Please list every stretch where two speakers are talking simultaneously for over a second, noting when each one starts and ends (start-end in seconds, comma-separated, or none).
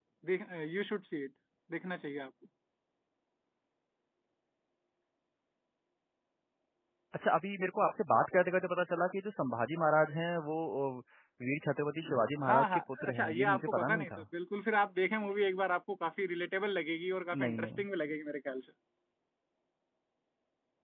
12.4-14.2